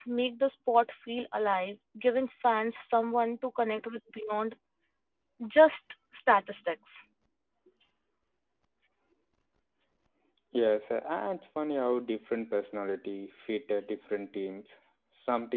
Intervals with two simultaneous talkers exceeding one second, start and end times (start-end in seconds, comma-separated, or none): none